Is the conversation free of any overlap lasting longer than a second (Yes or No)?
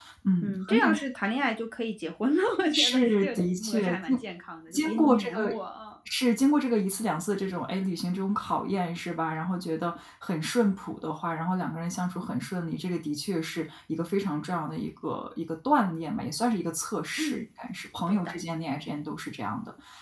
No